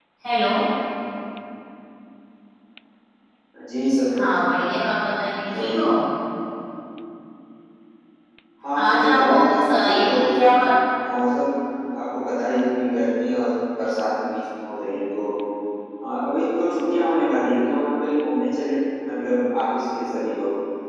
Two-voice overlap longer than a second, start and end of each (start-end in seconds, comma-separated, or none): 8.8-10.4